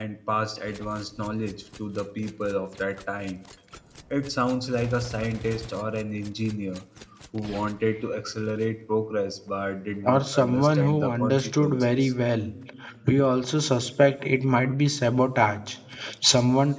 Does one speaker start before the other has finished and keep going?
Yes, from 10.0 s

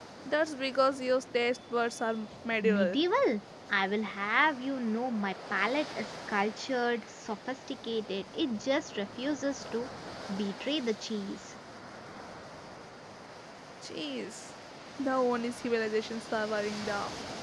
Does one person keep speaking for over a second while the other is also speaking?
No

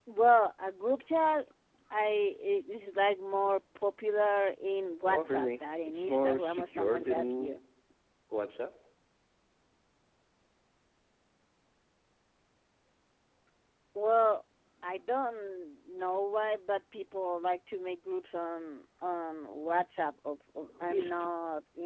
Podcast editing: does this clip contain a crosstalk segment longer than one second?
Yes, from 5.0 s

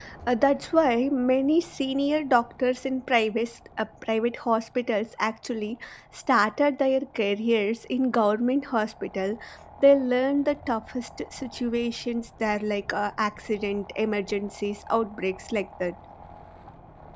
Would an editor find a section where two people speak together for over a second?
No

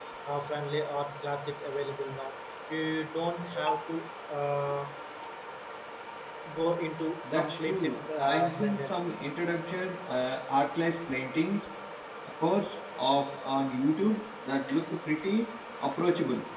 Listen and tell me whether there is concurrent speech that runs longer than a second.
Yes, from 7.4 s

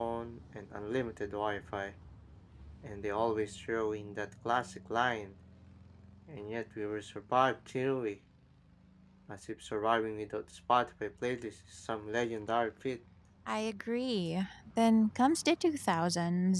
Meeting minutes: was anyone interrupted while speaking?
No

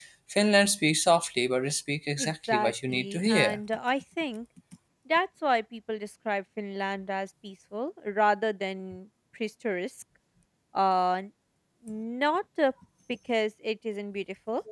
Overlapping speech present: Yes, from 2.2 s

